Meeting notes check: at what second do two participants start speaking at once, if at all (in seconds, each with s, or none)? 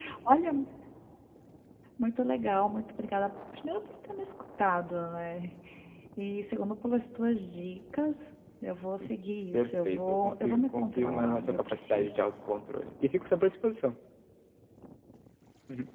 9.5 s